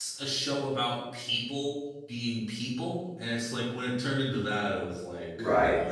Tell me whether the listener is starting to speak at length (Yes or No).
Yes